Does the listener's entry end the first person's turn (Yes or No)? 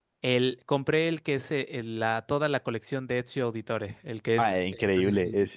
Yes